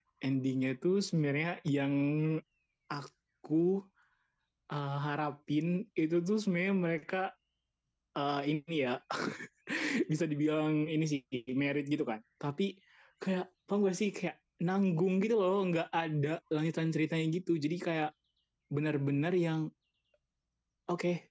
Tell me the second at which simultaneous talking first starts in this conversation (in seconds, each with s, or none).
none